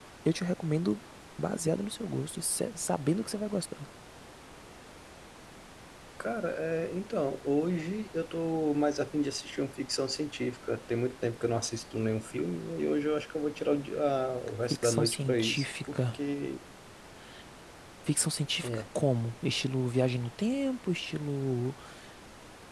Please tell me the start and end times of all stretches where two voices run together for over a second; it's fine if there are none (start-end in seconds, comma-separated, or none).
14.7-16.2